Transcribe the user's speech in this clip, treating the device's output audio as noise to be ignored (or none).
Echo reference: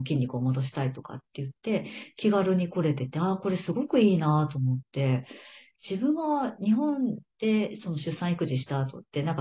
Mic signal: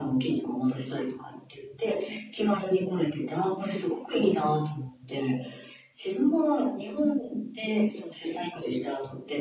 none